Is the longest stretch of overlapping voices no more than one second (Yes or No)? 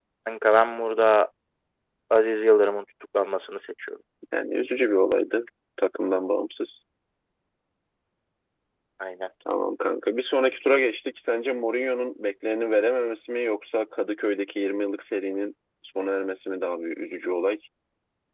Yes